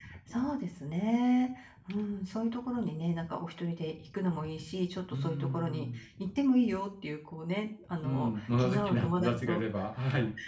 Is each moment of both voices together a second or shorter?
No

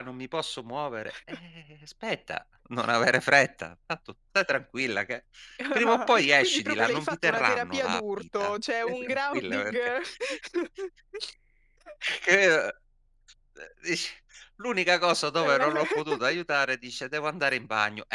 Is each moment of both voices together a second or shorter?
No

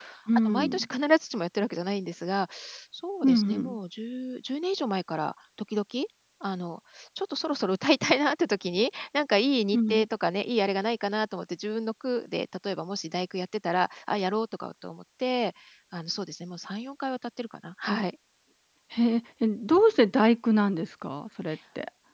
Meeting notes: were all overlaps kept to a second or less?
Yes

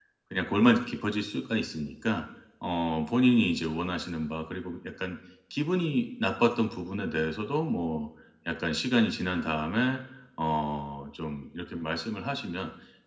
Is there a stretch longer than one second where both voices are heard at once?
No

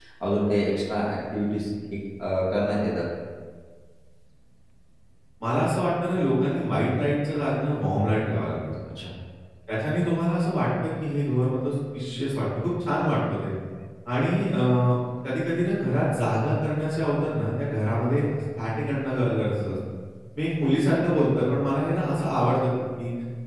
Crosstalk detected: No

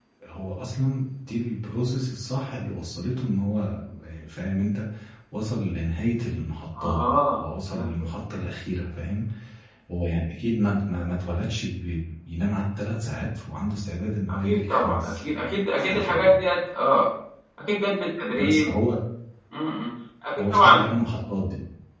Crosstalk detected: Yes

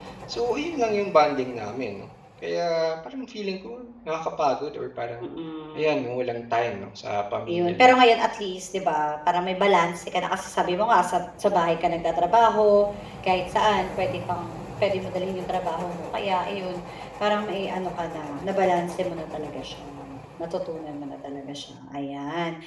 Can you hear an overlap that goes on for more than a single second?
No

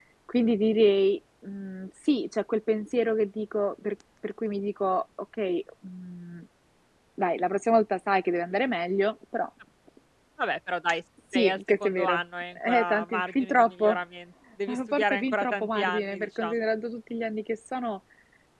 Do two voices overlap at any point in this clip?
Yes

